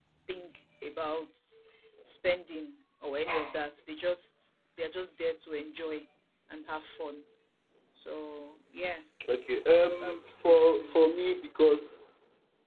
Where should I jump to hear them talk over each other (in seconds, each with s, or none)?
9.7 s